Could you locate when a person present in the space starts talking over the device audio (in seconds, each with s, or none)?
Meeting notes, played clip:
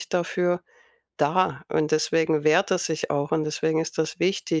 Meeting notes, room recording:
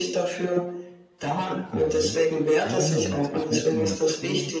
1.7 s